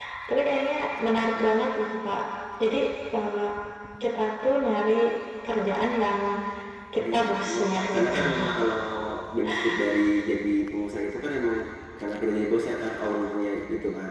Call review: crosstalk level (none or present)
present